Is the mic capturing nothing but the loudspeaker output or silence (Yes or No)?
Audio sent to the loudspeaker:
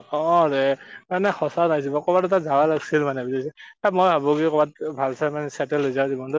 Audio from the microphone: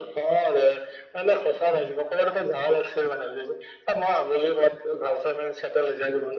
Yes